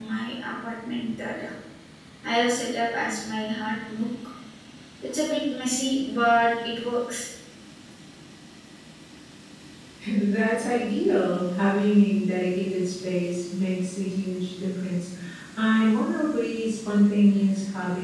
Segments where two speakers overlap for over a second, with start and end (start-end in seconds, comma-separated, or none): none